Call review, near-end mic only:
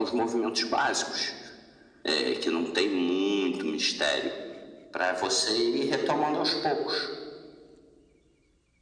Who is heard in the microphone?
echo only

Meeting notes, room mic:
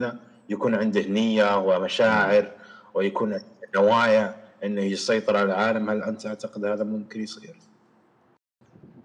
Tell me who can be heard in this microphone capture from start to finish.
both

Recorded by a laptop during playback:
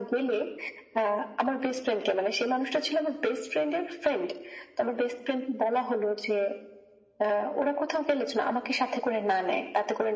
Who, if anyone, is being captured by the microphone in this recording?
echo only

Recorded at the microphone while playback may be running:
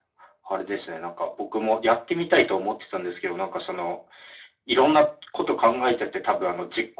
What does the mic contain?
echo only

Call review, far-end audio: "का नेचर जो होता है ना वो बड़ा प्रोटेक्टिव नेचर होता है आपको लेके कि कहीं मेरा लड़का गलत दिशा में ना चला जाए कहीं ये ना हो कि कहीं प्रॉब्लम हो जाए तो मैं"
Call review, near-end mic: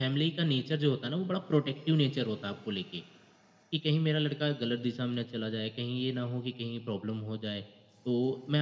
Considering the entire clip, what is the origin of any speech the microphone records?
echo only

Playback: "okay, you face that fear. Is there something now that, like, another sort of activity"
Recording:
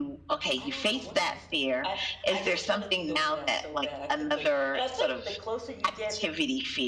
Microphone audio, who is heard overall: both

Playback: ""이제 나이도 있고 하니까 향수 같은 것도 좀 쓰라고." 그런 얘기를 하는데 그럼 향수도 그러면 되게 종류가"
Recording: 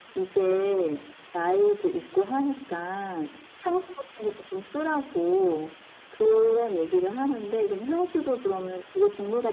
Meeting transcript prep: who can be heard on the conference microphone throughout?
echo only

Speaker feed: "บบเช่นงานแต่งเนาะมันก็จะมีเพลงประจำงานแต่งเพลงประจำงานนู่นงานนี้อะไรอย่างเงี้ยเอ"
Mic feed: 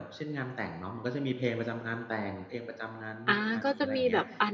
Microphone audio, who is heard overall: both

